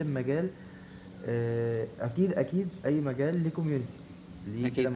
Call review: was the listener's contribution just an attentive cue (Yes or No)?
Yes